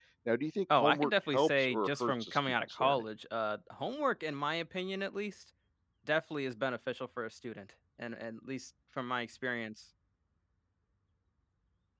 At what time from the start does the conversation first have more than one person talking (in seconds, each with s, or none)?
0.7 s